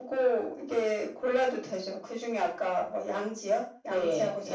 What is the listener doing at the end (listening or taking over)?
taking over